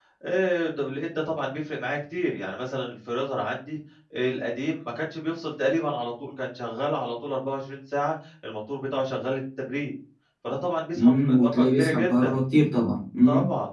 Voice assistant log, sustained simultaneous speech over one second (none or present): present